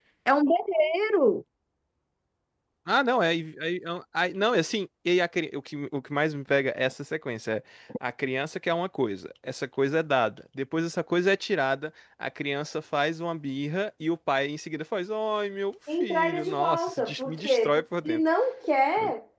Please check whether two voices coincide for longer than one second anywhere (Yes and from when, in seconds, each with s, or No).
Yes, from 15.9 s